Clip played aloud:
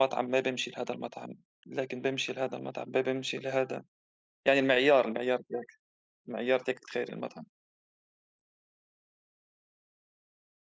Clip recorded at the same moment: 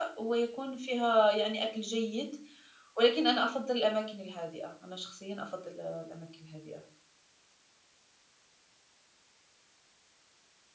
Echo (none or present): none